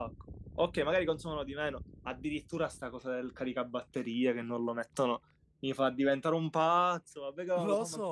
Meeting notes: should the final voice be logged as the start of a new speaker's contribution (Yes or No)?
No